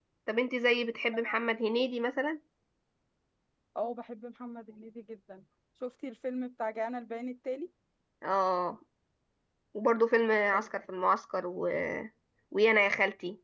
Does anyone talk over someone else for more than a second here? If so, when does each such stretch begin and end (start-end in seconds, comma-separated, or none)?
none